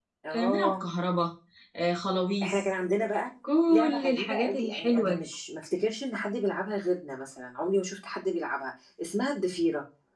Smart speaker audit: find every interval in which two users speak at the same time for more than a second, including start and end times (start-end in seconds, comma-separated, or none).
3.7-5.2